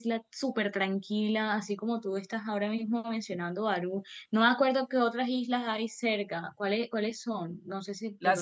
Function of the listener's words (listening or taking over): taking over